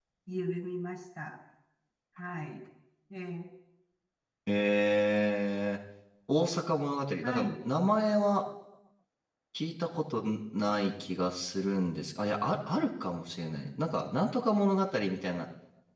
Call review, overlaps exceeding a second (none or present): none